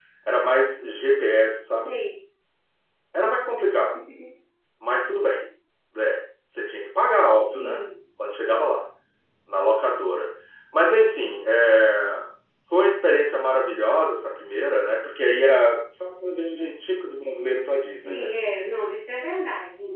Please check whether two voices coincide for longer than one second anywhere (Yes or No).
No